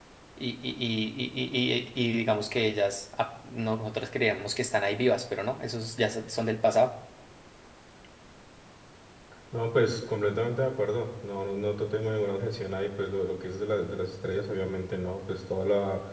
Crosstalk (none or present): none